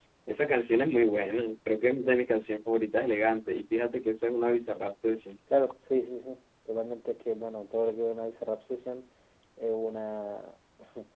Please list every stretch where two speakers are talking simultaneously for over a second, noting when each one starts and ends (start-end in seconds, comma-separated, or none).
none